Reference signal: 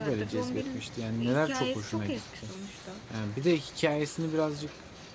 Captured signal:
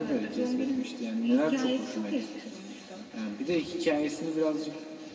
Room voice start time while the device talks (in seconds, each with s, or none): none